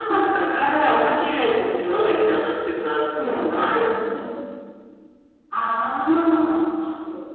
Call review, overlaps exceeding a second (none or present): none